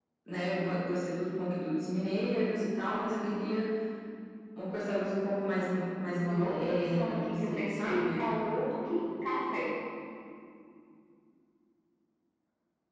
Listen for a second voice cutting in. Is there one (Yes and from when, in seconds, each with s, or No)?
Yes, from 6.1 s